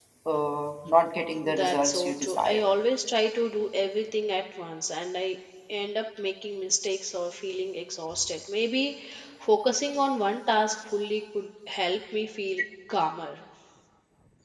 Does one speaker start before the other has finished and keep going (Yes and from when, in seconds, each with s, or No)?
Yes, from 1.4 s